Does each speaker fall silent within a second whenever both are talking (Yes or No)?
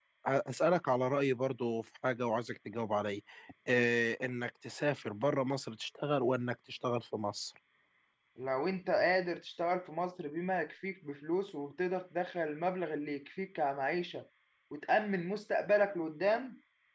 Yes